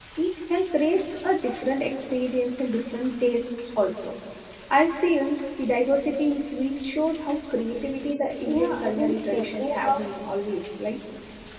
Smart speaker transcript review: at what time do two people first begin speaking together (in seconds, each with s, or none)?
8.5 s